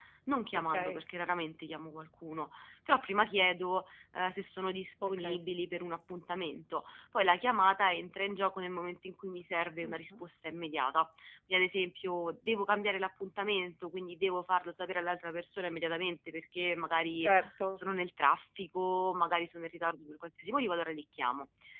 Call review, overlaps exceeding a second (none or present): none